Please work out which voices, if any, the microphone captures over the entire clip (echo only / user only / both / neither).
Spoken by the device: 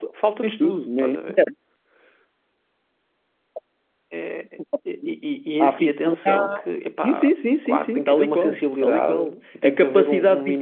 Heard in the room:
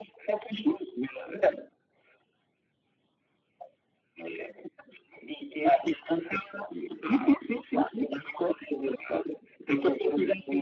echo only